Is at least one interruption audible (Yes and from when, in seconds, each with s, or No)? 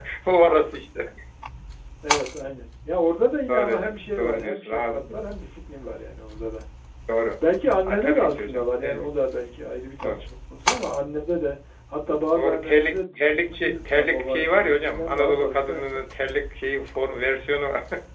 Yes, from 3.5 s